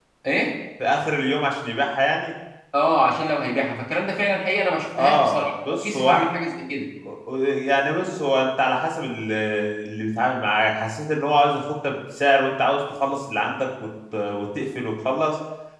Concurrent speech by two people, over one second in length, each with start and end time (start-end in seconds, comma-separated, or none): 5.0-6.3